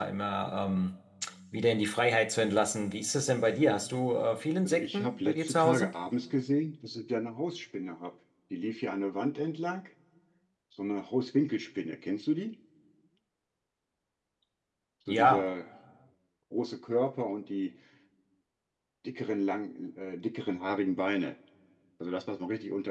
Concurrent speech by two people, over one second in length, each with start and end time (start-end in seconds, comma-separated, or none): 4.6-5.9